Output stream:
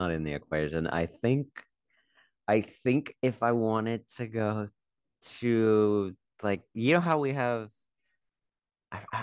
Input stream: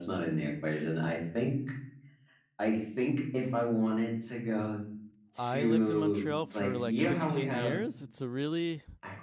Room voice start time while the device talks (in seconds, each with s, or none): 5.3 s